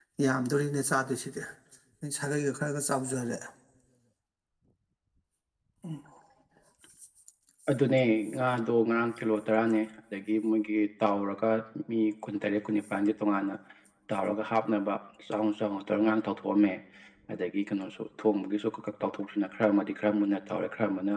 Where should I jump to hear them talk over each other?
none

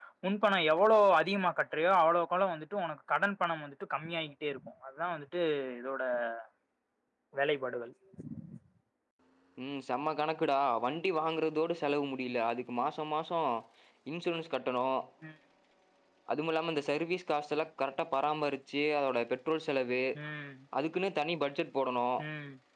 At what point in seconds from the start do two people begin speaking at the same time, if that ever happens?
none

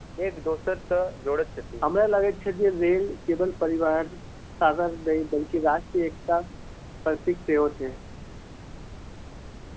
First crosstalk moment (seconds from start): none

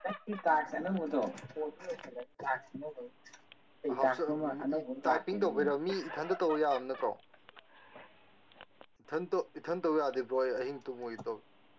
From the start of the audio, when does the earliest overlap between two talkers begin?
3.9 s

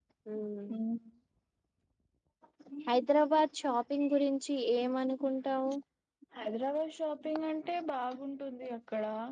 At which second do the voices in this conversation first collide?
none

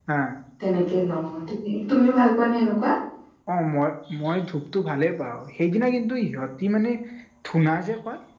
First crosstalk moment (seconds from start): none

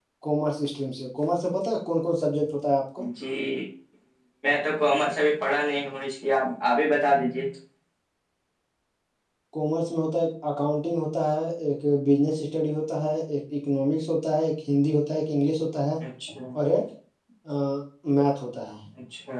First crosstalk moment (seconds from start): none

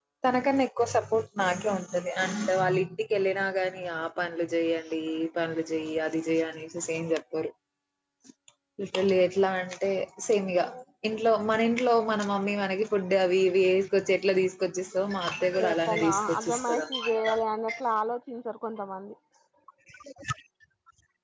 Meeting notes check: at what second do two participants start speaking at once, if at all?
15.6 s

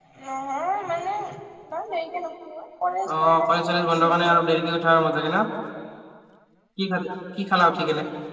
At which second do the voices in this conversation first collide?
3.1 s

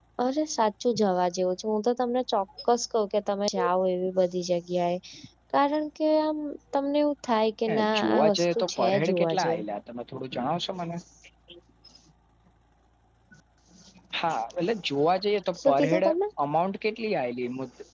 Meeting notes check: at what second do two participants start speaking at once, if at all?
7.7 s

